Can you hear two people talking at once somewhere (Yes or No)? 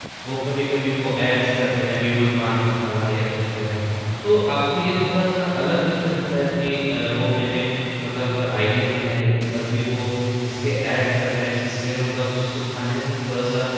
No